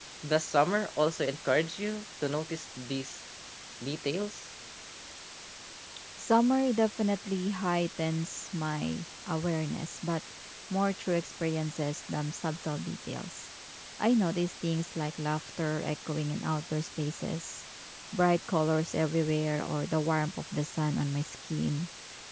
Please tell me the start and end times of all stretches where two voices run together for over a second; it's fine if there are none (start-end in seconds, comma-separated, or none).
none